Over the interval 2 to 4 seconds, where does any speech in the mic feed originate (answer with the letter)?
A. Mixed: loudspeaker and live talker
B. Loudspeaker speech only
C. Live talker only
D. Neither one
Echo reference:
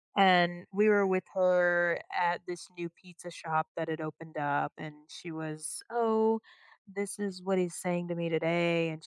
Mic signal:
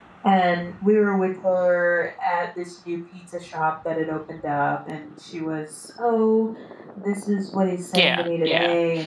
B